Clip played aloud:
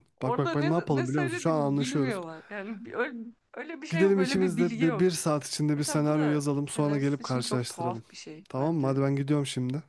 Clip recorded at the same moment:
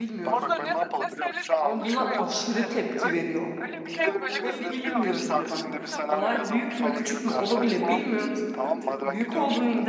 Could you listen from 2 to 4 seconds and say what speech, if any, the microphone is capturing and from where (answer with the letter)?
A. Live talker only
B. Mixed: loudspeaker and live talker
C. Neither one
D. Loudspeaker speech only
B